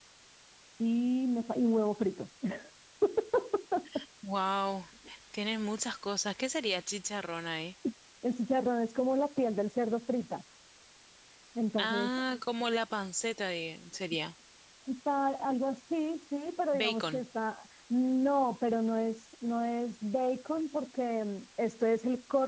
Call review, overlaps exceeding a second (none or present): none